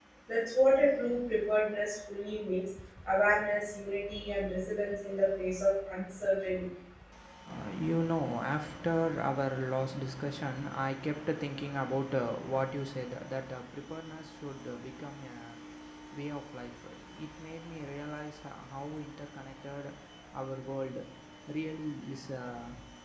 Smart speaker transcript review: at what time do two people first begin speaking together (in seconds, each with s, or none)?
none